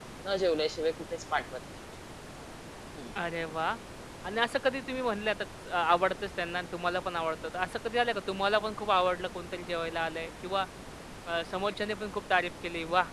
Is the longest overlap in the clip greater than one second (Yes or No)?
No